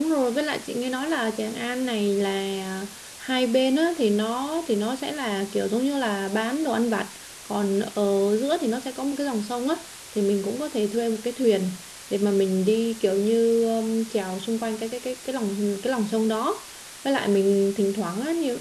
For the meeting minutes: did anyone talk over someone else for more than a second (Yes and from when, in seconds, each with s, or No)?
No